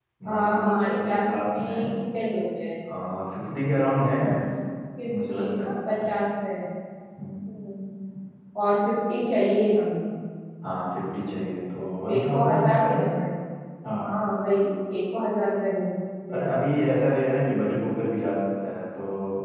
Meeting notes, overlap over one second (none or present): present